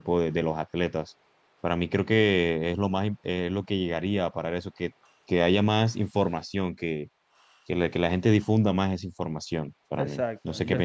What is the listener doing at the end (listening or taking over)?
taking over